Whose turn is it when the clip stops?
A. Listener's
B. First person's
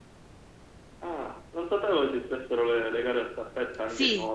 A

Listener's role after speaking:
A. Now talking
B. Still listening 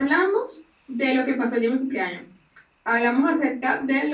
B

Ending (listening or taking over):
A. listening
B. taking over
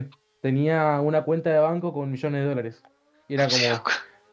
A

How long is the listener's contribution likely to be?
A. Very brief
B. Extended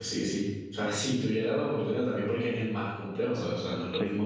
A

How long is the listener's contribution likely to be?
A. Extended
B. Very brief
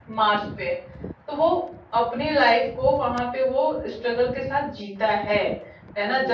B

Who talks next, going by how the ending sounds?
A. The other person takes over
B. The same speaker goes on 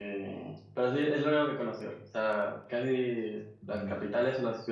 B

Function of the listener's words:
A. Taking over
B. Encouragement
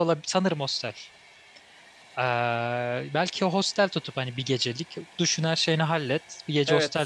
A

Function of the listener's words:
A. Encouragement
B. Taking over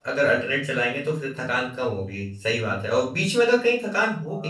A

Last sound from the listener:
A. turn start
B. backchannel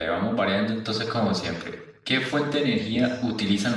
B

